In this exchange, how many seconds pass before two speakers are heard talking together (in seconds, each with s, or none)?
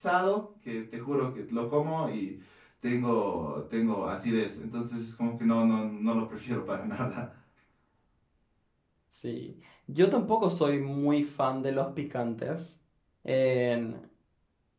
none